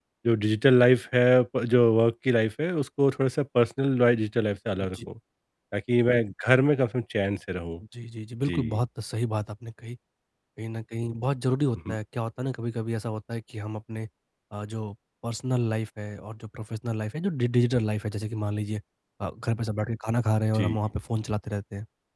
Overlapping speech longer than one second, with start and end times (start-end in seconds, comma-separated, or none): none